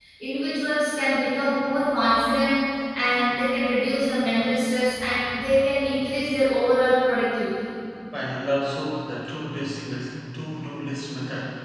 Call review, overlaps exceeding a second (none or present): none